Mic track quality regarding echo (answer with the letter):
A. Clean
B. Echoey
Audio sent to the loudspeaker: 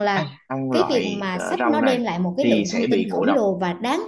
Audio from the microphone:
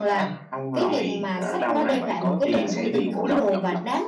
B